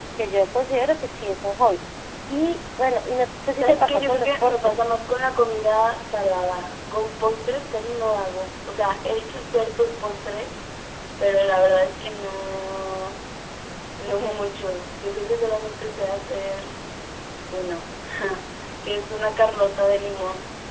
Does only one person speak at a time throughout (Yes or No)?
No